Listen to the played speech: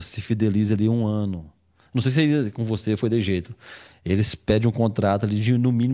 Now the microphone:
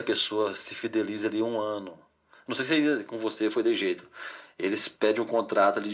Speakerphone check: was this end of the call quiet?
Yes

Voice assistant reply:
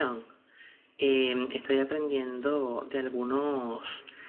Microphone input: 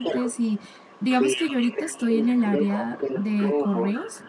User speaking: Yes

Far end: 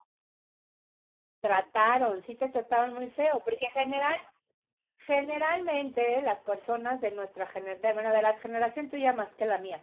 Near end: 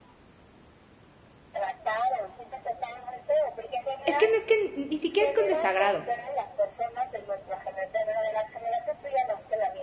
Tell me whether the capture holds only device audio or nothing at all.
No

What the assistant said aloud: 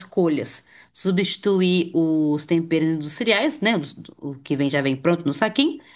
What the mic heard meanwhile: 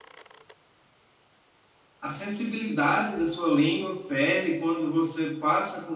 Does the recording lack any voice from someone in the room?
No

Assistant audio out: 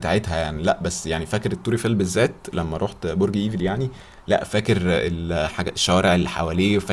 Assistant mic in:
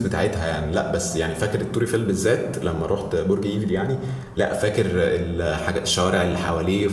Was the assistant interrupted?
No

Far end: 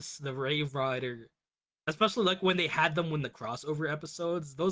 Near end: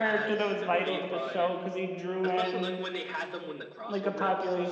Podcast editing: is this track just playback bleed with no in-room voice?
No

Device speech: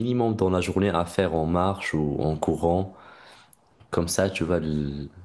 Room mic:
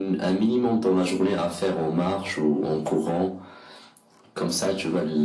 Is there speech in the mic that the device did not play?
No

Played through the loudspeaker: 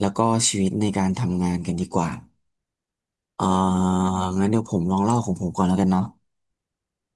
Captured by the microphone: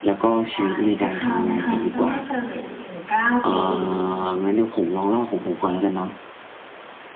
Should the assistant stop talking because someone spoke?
Yes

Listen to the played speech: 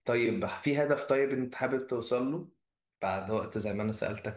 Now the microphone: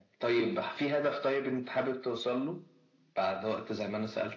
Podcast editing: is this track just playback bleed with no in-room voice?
Yes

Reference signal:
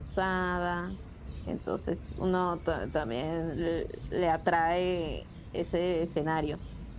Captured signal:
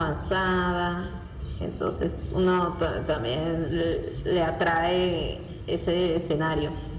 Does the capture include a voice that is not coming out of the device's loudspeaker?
No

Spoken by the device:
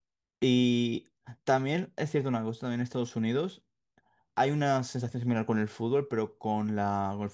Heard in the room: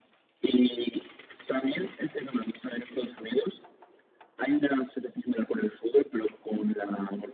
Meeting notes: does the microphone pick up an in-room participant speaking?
No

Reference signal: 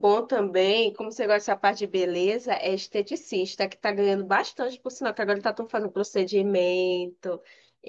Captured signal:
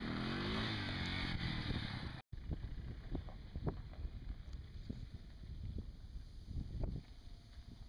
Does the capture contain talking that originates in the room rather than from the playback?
No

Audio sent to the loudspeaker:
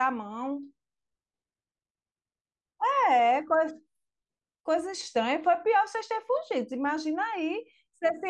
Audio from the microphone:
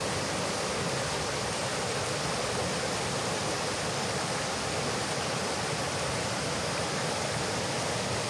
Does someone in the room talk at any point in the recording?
No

